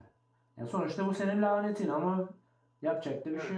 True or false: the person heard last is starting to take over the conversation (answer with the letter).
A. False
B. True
B